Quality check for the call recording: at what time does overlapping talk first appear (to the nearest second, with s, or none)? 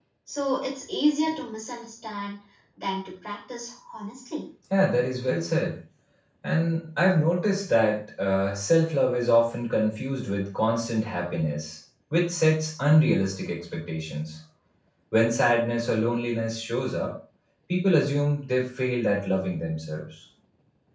none